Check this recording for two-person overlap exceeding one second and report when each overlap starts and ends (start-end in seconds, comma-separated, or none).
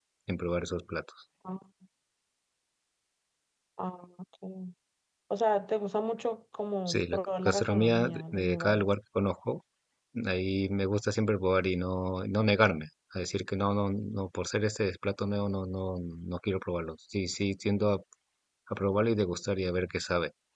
6.9-8.9